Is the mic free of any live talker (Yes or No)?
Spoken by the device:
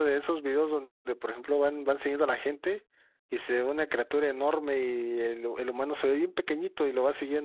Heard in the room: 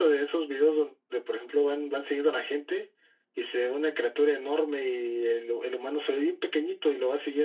Yes